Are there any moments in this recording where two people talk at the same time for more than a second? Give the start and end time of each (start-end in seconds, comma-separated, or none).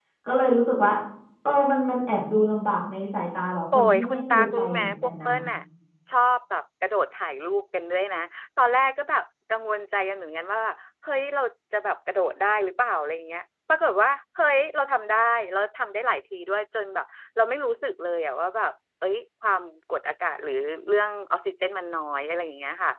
3.7-5.3